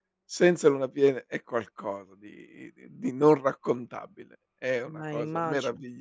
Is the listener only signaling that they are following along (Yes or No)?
Yes